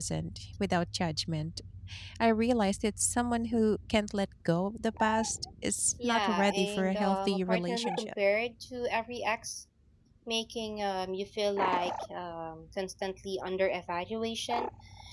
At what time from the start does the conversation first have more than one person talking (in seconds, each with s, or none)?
6.0 s